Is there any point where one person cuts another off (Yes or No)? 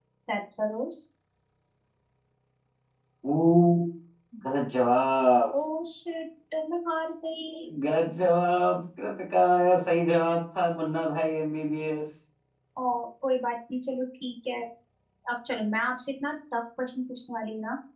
No